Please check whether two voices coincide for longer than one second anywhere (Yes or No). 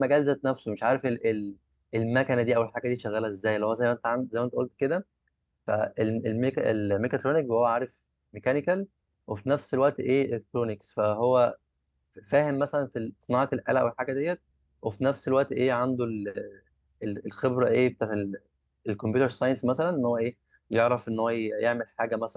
No